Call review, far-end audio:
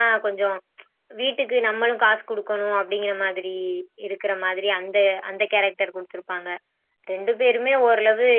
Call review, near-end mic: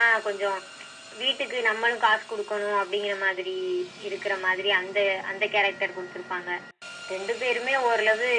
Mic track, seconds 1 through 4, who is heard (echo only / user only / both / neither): echo only